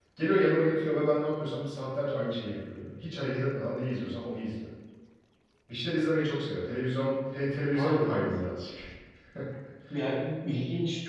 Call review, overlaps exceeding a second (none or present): none